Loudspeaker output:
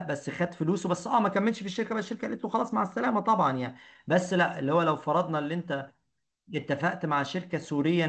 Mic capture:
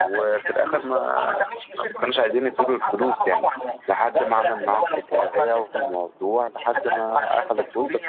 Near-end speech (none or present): present